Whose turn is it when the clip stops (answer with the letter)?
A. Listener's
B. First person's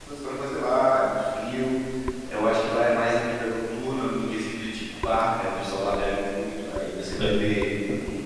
B